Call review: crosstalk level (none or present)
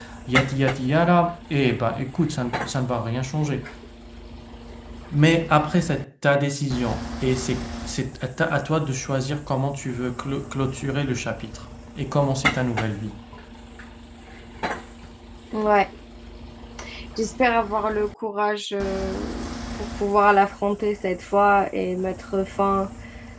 none